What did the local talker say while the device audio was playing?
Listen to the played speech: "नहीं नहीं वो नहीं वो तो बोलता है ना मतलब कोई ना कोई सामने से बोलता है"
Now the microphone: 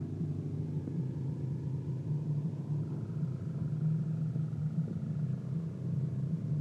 none

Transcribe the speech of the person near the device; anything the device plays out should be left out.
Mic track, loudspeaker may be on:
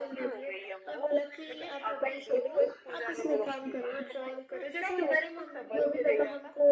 none

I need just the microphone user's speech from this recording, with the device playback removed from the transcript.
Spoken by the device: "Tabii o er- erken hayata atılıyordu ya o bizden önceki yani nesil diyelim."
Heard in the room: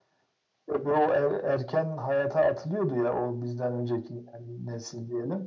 none

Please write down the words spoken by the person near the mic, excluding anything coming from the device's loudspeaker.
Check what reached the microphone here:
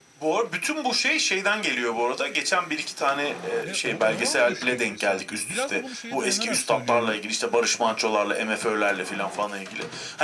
E oran düştü gibi sanki. Biraz da bunu şeye dayanarak söylüyorum.

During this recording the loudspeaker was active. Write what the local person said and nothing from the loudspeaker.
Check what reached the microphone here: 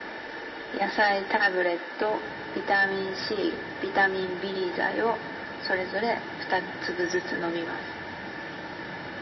none

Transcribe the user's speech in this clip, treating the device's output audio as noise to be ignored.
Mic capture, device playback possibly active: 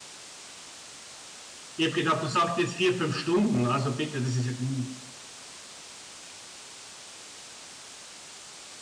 Ich habe gedacht, du sagst jetzt vier, fünf Stunden, also bitte, das ist ja gar nicht.

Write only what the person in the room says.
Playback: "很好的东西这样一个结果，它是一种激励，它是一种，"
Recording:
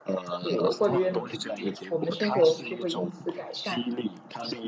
苦，过得越努力，我们的生活就会因此改善。

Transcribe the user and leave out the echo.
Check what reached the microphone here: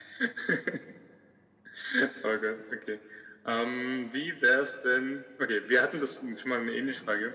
none

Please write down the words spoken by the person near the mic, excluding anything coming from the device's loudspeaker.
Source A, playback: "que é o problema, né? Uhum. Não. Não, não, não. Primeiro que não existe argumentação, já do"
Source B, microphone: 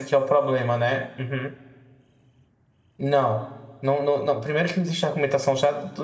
none

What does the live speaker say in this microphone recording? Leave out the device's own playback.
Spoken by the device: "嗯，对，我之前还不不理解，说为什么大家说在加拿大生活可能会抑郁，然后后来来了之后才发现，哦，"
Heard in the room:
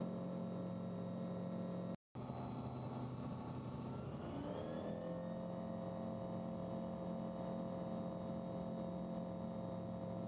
none

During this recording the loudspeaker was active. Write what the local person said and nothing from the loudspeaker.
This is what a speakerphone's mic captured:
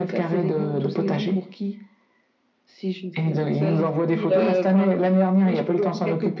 none

